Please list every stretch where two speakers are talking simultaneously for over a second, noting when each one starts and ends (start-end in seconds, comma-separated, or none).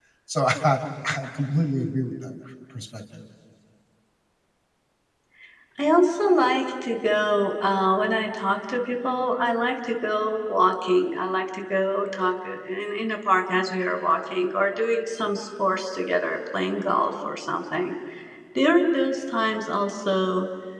none